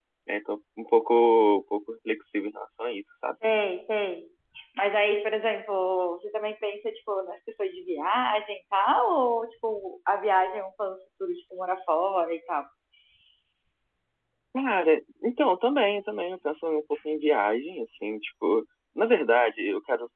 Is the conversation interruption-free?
Yes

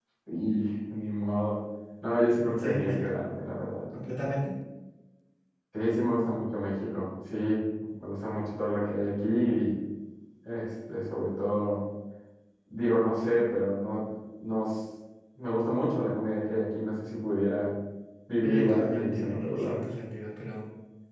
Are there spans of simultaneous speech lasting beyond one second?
Yes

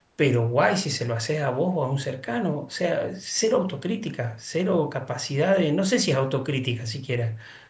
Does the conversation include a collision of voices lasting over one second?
No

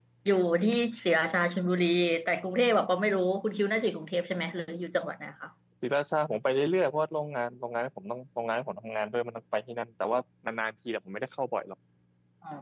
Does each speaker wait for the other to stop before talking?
Yes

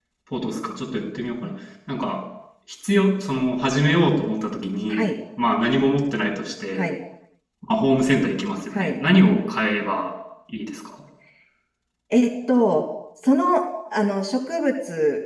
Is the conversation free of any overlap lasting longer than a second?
Yes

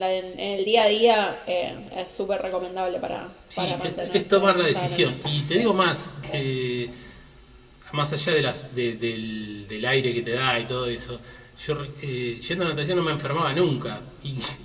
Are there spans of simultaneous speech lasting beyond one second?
Yes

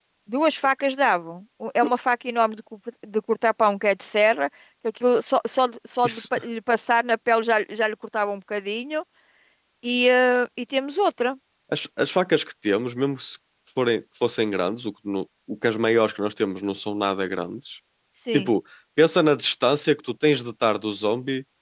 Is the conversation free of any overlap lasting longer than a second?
Yes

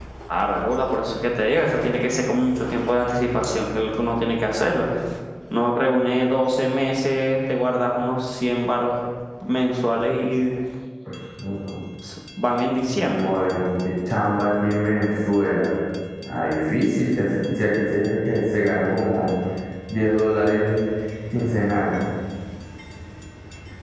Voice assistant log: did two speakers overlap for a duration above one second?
No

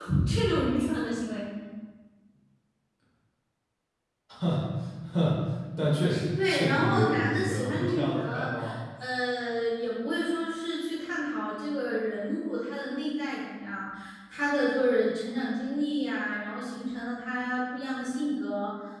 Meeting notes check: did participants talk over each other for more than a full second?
Yes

